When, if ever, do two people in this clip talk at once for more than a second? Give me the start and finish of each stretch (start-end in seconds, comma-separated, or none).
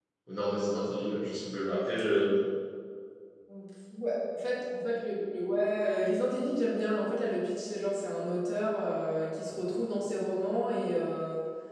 none